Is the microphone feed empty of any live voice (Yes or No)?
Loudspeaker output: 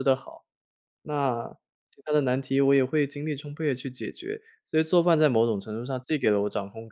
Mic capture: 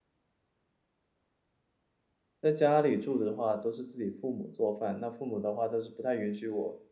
No